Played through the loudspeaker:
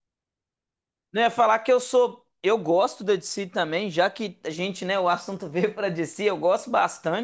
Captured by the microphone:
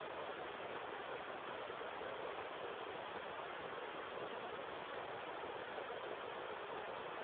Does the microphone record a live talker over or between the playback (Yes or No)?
No